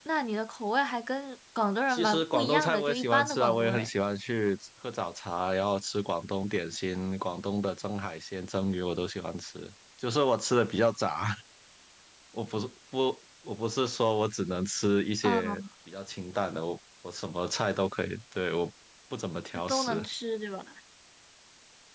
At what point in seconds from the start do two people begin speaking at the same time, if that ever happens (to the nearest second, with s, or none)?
2 s